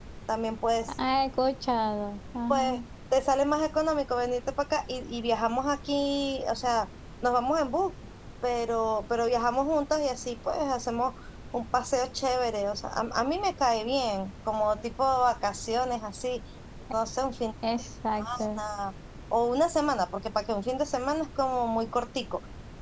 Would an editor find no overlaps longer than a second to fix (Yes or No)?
Yes